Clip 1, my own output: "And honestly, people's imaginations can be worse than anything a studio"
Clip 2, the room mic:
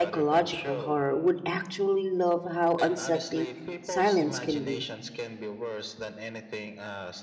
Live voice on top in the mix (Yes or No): Yes